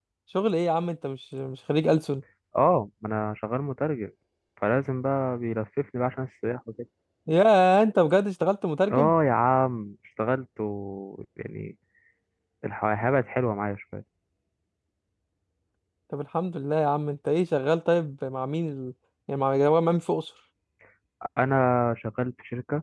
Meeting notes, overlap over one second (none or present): none